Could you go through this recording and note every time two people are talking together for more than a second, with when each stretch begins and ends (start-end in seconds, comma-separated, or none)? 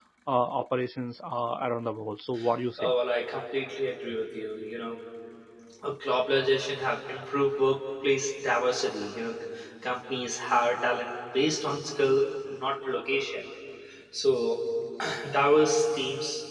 none